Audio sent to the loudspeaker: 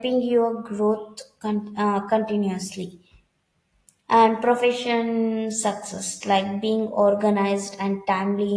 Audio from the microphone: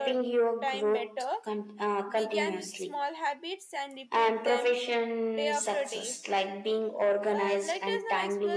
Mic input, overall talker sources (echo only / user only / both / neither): both